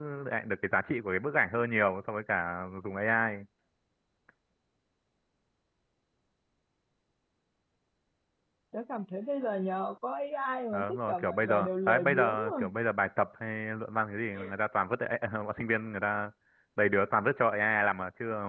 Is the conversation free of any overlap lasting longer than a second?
No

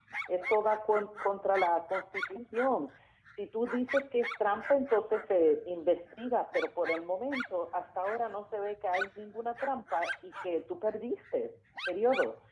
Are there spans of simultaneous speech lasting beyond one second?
No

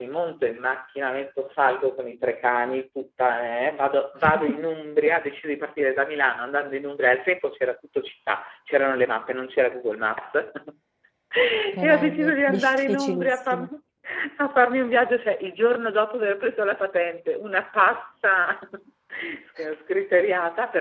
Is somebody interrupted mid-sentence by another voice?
Yes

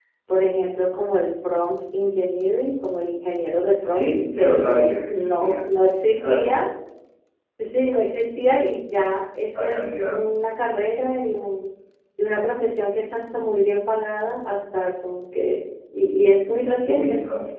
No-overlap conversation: No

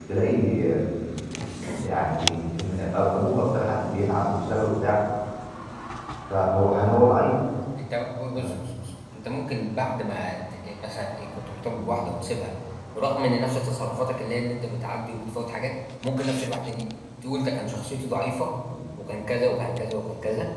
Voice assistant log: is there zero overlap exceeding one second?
Yes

